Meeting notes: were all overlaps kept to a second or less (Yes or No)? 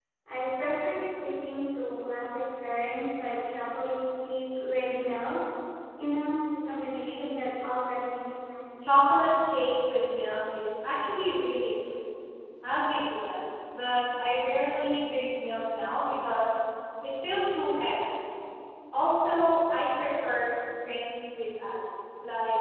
Yes